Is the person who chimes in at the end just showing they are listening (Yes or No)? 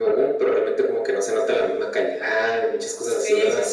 No